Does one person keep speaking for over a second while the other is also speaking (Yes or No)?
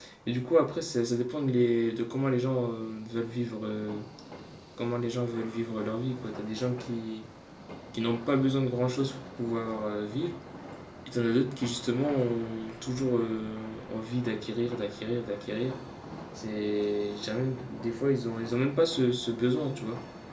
No